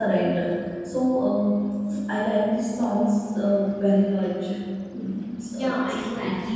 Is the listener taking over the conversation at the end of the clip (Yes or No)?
Yes